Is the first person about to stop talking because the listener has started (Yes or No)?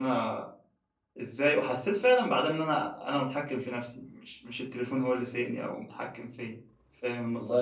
Yes